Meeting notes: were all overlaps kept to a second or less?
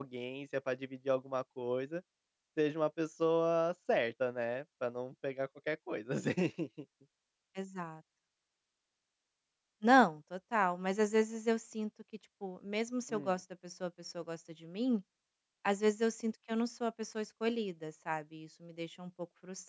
Yes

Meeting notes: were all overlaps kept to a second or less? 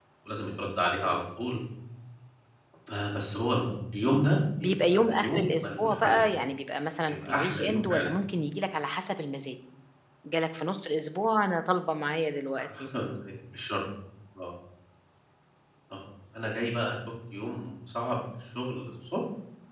No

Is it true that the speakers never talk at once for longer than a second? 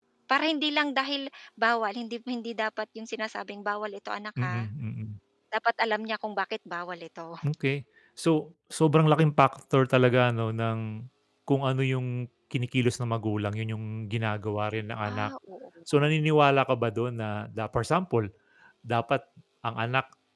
Yes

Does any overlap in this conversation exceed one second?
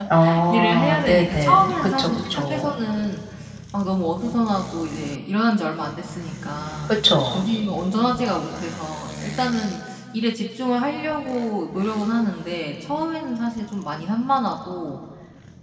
Yes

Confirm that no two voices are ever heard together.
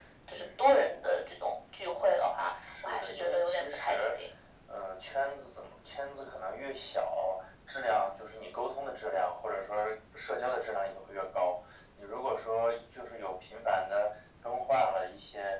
No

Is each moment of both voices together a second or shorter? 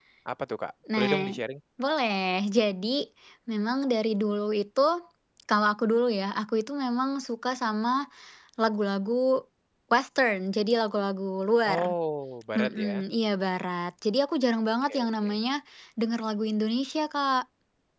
Yes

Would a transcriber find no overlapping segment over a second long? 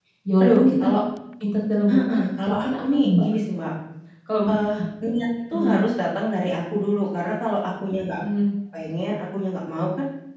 No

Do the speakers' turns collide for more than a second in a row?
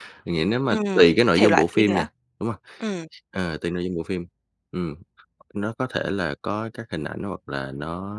Yes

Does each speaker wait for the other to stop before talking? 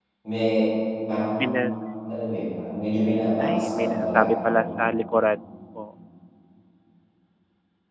No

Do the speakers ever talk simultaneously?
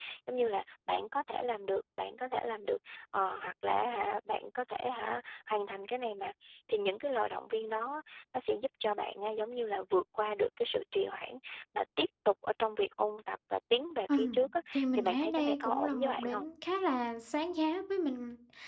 Yes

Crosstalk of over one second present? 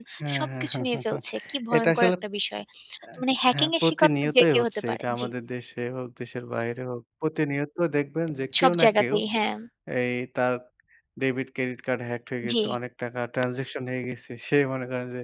Yes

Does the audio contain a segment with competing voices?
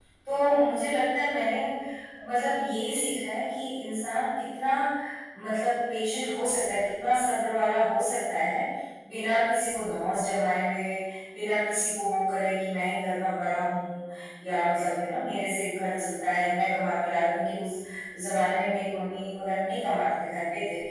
No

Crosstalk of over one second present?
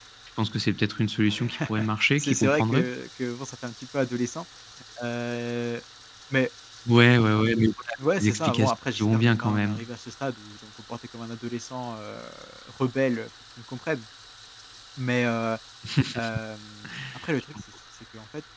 Yes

